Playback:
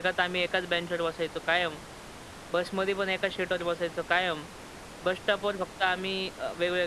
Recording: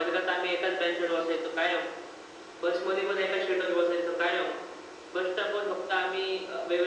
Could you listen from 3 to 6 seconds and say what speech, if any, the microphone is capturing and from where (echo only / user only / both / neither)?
echo only